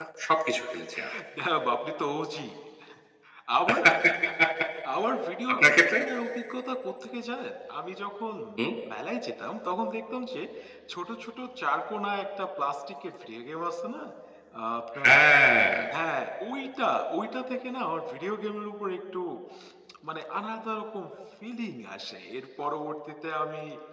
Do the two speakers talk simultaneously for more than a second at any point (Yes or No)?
No